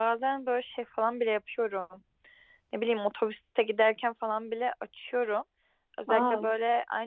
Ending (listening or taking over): listening